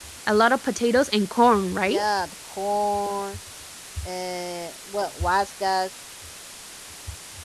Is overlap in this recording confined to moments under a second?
Yes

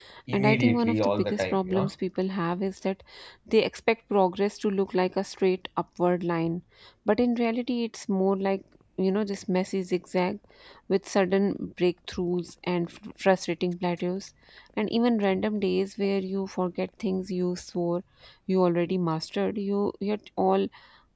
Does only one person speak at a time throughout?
No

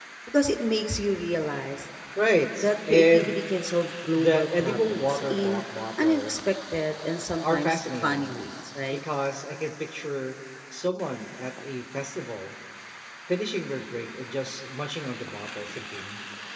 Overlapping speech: Yes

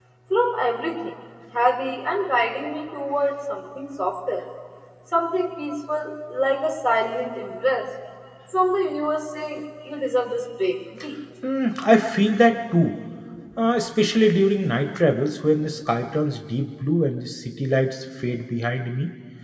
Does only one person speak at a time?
Yes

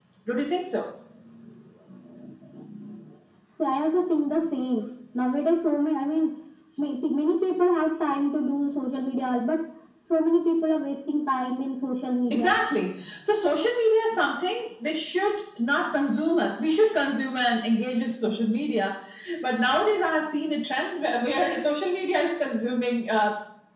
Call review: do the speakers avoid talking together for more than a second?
Yes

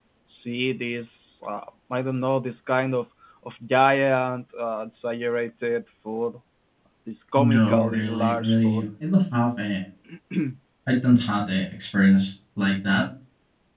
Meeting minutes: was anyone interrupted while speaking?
Yes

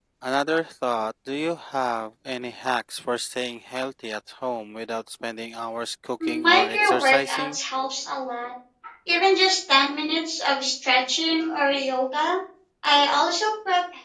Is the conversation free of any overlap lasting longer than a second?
No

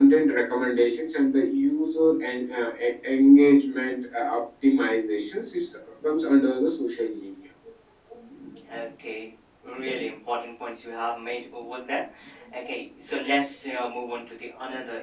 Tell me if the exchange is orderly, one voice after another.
Yes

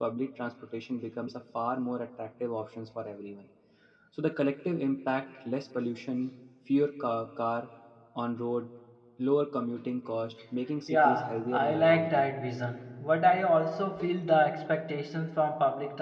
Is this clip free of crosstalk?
No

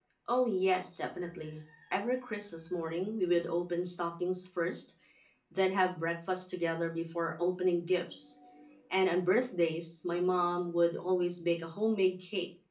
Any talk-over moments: No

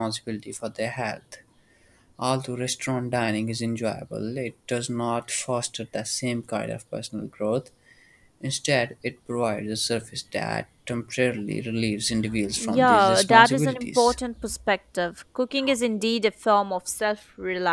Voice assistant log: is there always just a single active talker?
No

